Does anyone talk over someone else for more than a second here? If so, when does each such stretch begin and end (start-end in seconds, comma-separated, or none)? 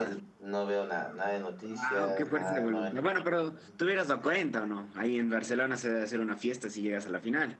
1.6-3.0